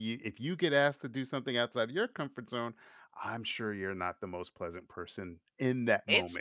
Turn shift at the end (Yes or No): Yes